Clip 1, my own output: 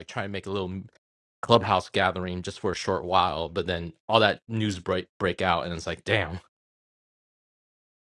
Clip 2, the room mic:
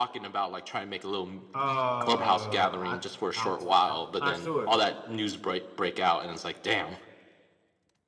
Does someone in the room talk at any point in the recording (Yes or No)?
Yes